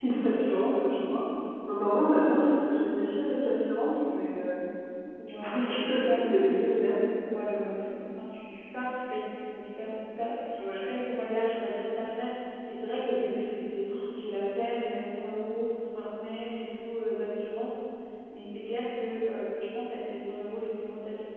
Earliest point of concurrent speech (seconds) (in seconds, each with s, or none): 5.4 s